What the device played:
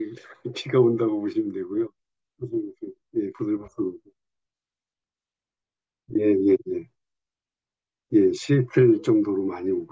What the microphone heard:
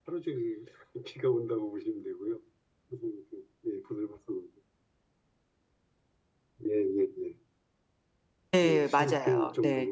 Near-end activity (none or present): present